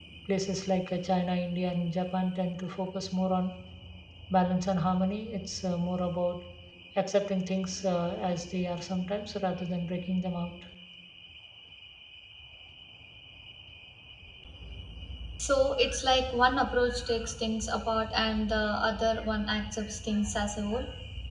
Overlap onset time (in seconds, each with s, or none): none